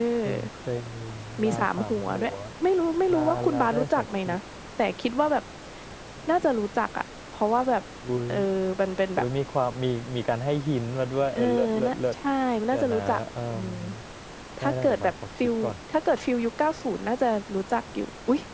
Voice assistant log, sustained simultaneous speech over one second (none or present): present